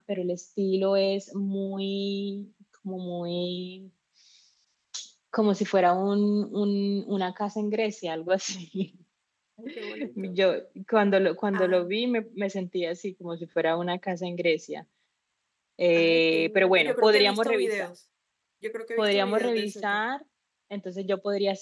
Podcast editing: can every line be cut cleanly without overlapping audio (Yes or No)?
No